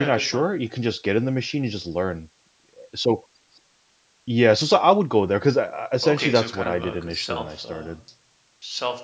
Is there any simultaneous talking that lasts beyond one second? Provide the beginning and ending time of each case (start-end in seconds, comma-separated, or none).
6.0-8.0